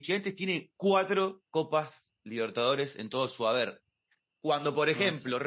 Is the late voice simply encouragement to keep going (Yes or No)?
Yes